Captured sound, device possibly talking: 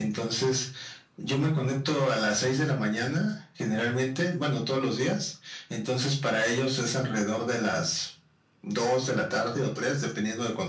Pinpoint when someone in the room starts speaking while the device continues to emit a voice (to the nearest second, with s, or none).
none